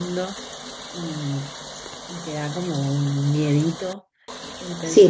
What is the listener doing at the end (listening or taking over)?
taking over